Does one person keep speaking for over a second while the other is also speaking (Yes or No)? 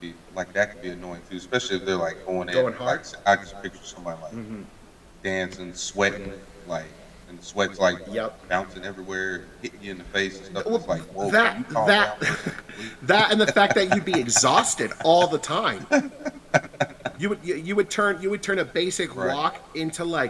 Yes